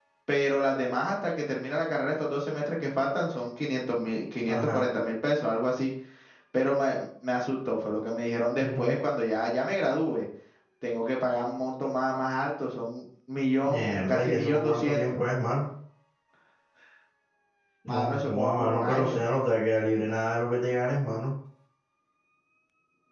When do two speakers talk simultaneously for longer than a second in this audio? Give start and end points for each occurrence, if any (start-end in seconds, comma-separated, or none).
13.6-15.0, 17.9-19.2